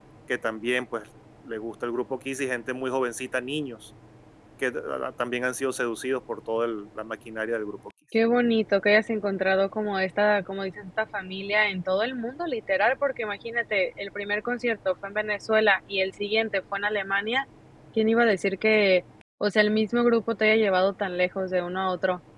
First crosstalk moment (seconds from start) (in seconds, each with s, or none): none